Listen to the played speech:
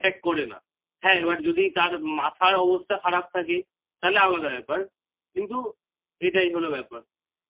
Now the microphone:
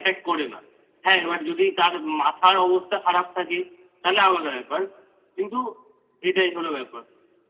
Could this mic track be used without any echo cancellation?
No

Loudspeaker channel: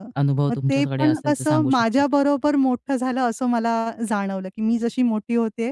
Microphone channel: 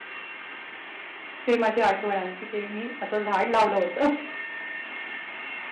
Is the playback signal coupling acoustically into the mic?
No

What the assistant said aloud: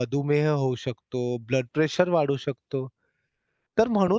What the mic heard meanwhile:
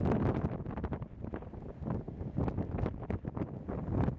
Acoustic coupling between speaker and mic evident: No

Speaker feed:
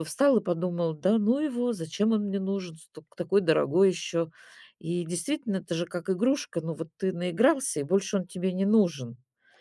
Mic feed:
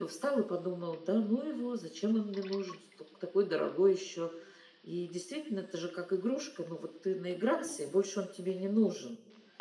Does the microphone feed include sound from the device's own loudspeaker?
Yes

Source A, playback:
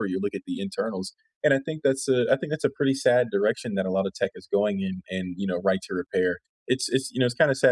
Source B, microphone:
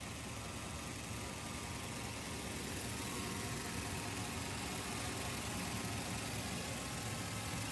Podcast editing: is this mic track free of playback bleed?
Yes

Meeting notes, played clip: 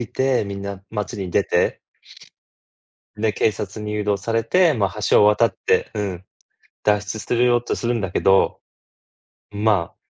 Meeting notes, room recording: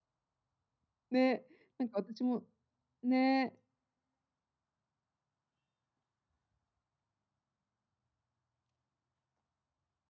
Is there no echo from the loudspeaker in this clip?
Yes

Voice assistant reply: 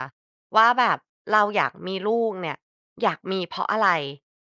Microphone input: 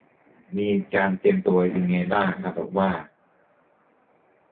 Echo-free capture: Yes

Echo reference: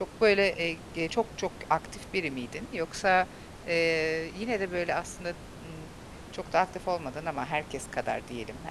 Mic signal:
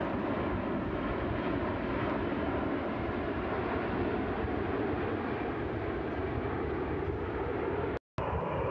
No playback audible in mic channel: Yes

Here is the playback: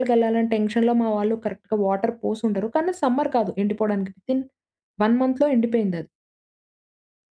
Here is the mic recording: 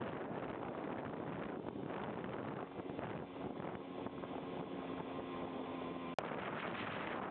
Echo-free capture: Yes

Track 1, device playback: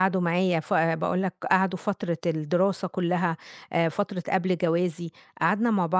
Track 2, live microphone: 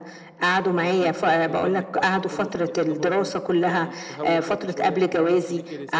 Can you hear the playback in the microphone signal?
Yes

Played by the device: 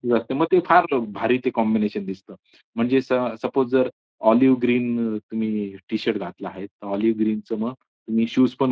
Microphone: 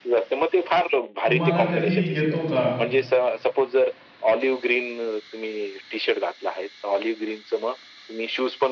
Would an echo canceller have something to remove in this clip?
Yes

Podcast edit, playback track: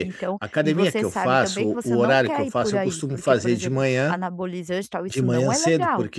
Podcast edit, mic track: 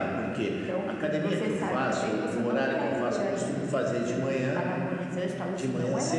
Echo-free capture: No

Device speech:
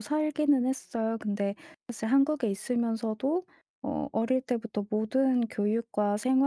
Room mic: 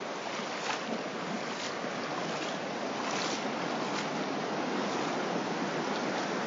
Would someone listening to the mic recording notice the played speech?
No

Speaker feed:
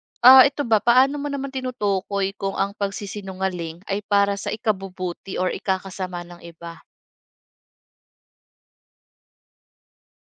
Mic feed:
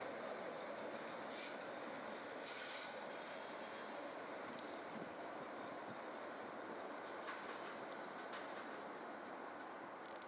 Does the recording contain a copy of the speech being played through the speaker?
No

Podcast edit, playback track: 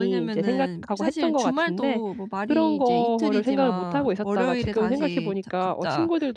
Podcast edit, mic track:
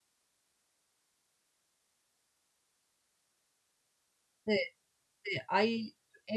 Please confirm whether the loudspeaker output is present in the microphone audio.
No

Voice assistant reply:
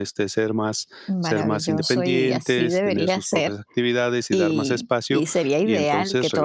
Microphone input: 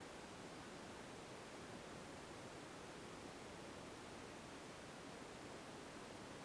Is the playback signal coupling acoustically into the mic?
No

